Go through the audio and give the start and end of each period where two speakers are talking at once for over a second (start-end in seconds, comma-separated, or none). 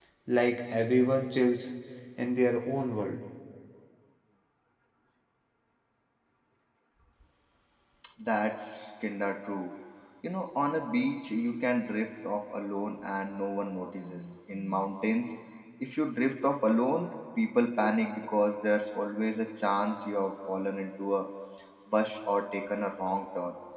none